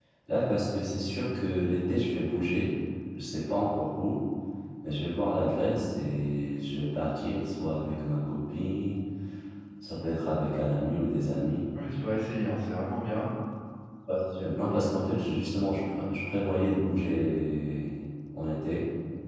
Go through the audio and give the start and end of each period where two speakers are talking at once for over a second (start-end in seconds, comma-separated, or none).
none